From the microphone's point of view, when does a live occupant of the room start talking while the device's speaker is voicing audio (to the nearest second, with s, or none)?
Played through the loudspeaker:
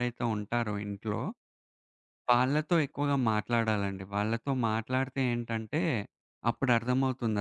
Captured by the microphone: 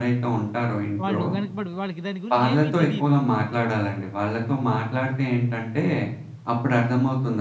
1 s